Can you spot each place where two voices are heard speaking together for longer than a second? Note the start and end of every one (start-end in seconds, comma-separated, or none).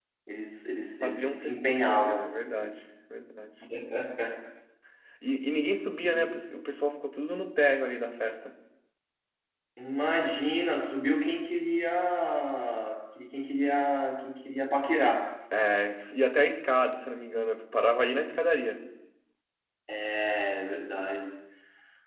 1.0-2.3